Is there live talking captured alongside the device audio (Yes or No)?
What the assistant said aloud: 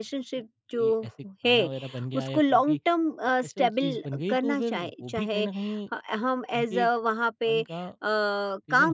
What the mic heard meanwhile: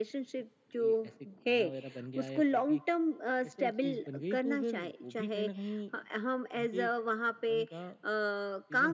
No